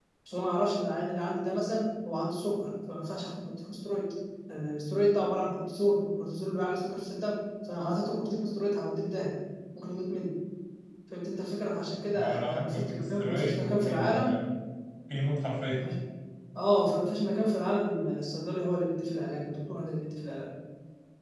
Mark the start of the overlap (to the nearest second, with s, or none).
12 s